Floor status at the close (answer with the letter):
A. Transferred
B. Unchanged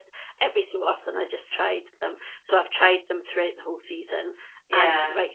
B